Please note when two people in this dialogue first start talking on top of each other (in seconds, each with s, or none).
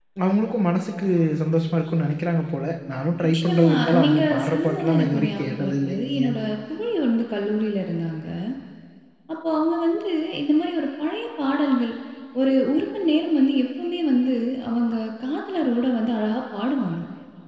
3.2 s